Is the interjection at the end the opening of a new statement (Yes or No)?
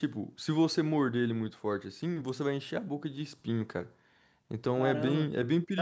Yes